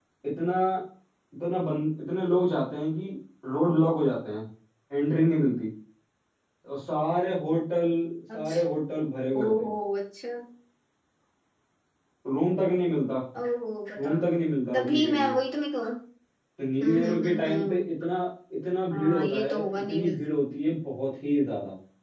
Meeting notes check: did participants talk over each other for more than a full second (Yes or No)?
Yes